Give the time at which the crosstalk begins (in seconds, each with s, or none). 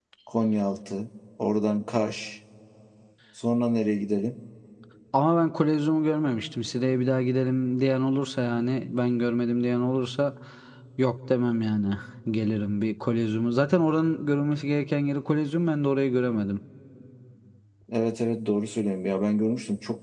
none